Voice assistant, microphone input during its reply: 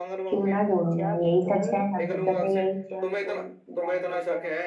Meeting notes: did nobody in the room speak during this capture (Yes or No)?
No